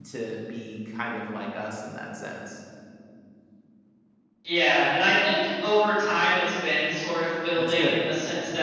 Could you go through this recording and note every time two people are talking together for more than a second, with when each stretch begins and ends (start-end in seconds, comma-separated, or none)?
none